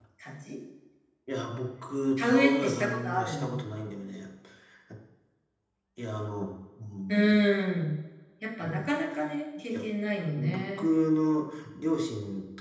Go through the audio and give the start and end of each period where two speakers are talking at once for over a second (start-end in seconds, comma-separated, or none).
2.2-3.5